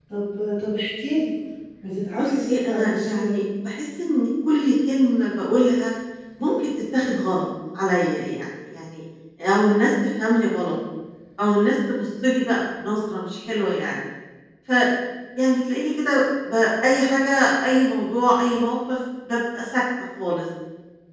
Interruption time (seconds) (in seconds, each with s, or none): 2.2 s